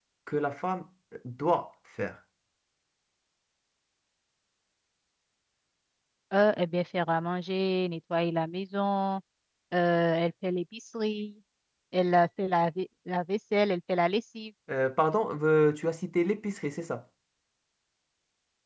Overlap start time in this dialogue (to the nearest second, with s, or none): none